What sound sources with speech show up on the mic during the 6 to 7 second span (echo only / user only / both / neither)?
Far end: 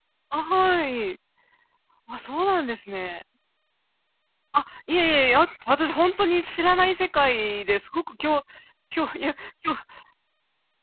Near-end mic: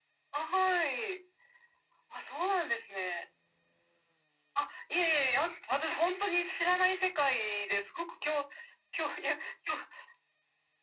echo only